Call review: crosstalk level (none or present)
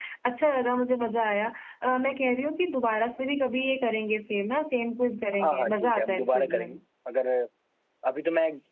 present